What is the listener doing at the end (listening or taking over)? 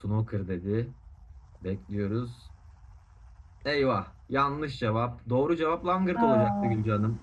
listening